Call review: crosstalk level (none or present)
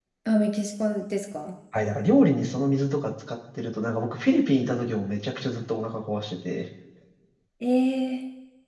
none